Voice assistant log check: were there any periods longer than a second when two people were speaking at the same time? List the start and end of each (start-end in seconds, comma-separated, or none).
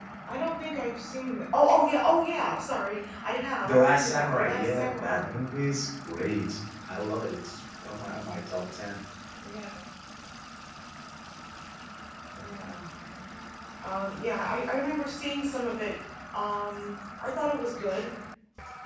3.6-5.4